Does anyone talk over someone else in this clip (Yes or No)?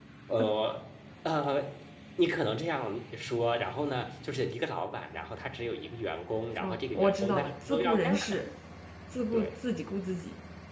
Yes